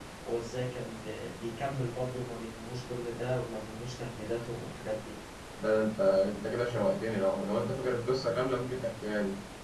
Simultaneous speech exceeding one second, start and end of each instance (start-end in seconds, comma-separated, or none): none